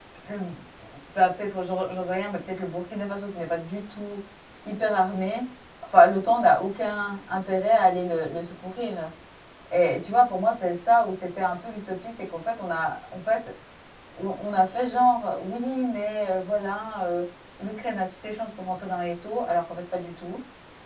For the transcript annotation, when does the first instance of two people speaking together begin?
none

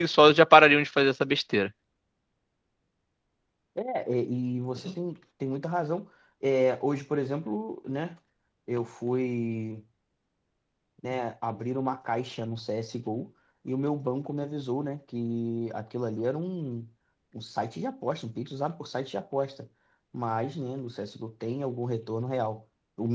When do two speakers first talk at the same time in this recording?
none

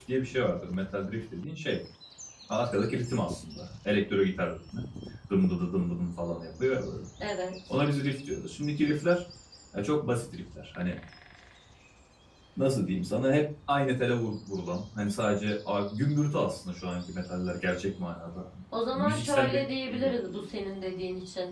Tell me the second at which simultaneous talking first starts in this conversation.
18.7 s

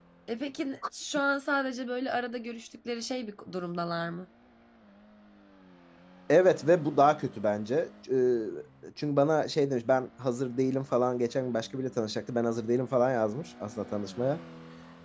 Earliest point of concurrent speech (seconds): none

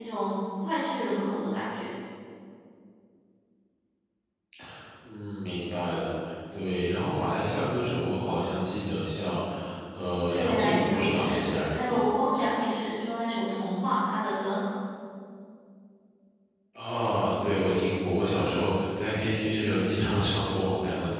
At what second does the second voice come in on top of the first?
10.3 s

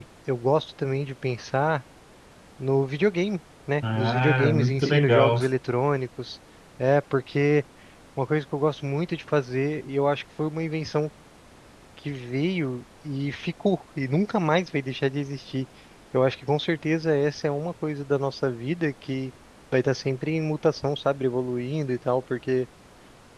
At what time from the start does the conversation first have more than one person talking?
3.8 s

